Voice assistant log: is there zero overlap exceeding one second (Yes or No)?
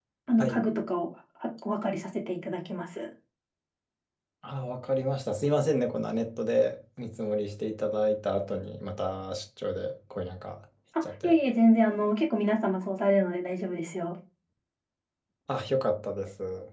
Yes